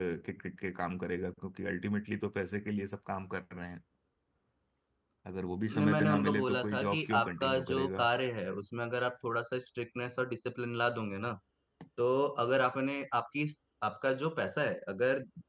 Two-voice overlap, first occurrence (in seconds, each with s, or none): 5.8 s